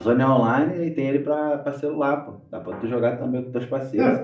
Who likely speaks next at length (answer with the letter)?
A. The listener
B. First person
A